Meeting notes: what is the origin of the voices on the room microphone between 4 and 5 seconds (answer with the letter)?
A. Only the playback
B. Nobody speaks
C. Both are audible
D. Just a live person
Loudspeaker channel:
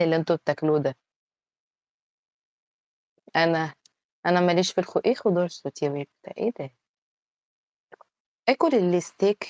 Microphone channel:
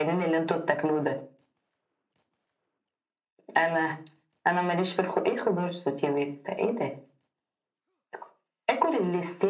A